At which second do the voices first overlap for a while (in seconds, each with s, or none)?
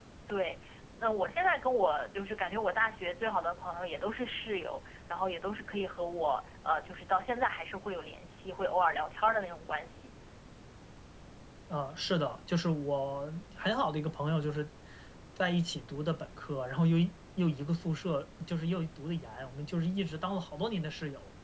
none